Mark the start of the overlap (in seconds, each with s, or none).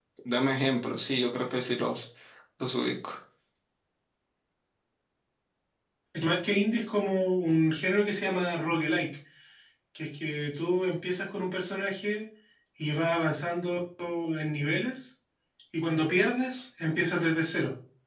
none